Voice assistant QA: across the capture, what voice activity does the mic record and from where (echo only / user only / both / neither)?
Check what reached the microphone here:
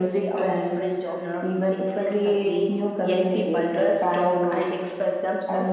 echo only